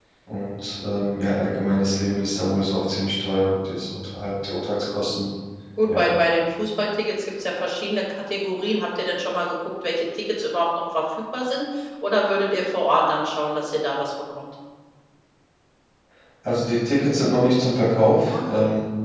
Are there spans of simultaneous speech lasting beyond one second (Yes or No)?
No